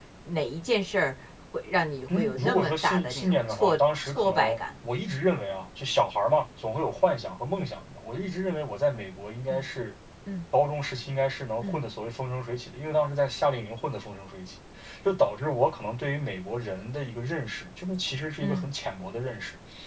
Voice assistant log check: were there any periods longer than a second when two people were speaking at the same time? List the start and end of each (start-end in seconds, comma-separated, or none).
2.1-4.6